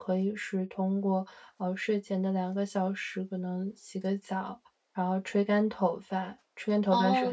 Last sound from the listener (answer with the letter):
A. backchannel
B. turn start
B